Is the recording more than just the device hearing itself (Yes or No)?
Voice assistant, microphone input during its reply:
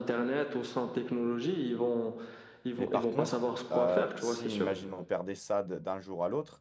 Yes